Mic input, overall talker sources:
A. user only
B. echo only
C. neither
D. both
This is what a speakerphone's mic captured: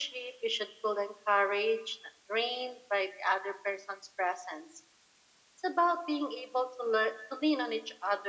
B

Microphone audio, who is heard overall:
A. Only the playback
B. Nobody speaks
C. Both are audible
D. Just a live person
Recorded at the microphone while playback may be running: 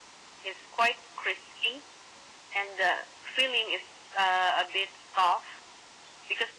A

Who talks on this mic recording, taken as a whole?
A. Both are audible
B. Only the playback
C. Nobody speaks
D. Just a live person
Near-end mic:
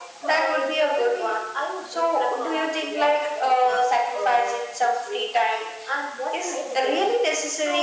B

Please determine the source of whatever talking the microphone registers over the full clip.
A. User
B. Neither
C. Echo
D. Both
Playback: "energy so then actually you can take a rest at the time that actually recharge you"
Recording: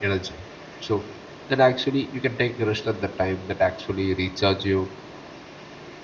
C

